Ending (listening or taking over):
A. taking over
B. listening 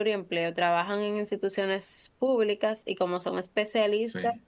B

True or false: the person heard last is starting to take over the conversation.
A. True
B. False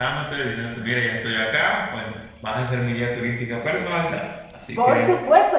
A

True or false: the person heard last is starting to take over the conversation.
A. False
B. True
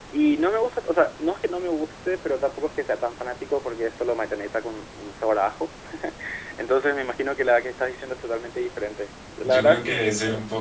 B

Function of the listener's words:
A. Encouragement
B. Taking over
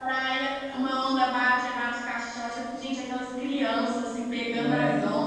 A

